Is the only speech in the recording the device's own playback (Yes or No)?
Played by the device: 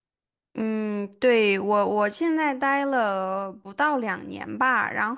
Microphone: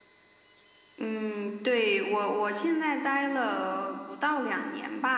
Yes